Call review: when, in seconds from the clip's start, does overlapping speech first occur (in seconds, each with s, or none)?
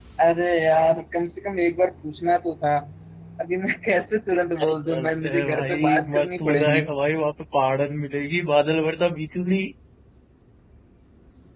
4.6 s